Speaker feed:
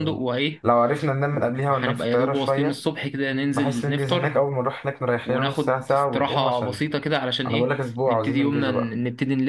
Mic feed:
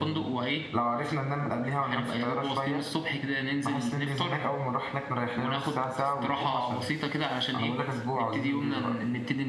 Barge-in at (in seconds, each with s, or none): none